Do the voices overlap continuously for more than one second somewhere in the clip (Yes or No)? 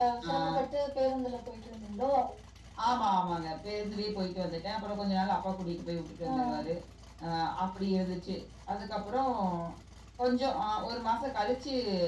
No